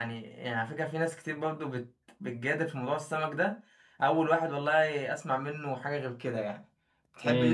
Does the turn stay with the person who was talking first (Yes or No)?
No